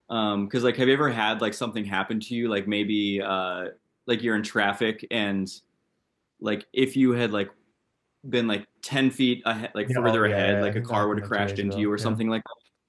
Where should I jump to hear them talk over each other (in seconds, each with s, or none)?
9.8 s